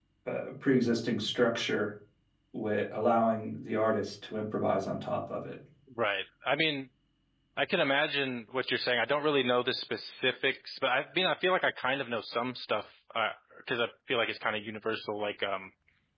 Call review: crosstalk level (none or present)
none